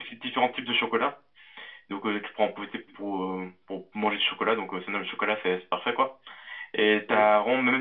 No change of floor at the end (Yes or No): Yes